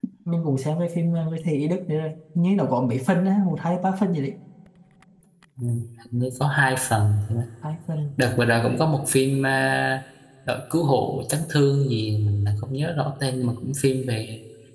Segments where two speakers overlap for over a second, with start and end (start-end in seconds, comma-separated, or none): none